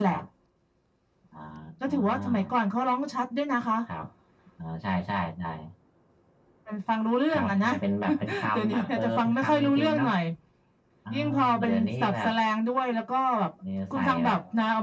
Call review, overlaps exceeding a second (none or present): present